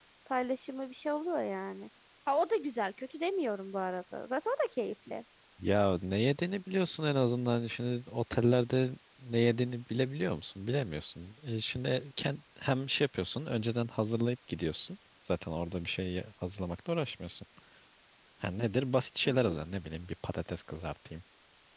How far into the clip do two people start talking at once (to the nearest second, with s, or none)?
none